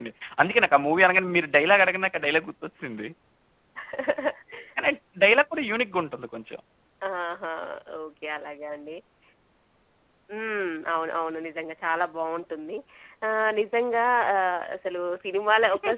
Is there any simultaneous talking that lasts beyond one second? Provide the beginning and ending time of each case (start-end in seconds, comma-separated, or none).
none